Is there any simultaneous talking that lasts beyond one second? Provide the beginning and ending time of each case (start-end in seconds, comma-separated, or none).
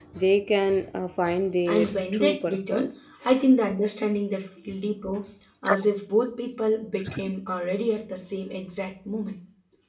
1.6-2.9